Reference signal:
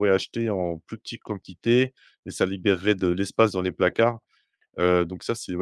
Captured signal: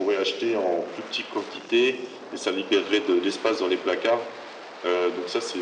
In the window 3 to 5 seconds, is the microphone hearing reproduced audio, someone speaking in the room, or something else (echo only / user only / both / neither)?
echo only